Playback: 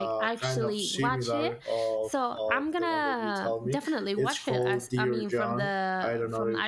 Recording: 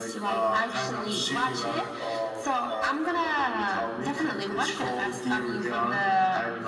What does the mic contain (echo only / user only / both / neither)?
echo only